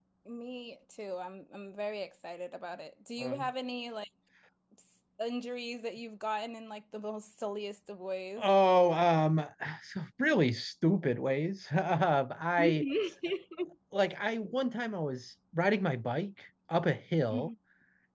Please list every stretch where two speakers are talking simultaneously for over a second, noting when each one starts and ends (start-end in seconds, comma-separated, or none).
none